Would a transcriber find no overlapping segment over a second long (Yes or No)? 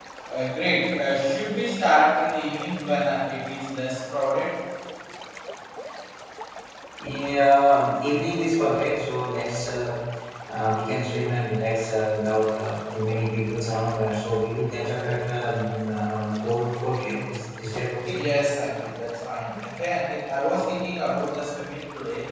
Yes